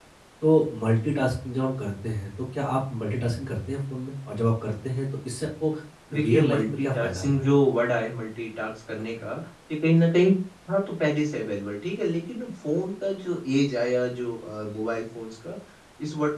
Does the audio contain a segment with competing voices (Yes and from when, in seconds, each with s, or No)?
Yes, from 6.2 s